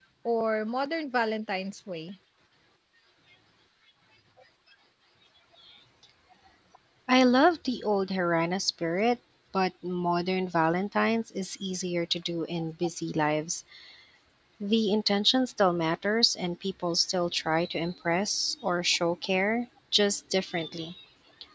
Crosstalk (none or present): none